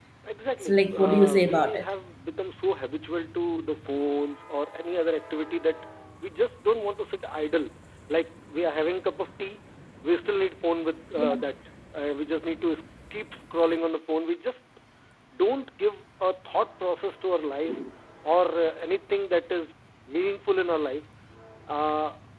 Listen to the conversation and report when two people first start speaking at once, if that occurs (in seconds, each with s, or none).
0.6 s